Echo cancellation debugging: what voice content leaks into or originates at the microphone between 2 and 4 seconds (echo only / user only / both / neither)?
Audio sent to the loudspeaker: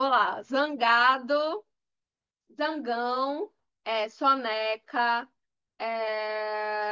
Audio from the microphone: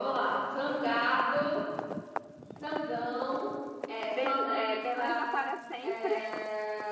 echo only